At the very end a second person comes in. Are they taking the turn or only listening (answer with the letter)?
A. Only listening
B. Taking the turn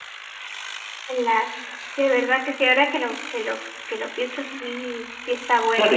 B